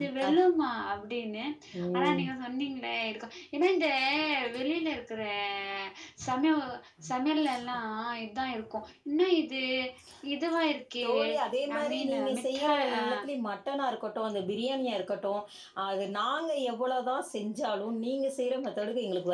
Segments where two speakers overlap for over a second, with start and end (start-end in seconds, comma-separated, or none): 11.8-13.0